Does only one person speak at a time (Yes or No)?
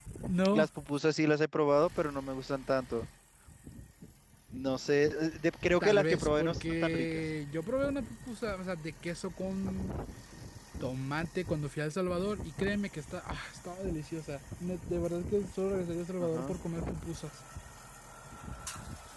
No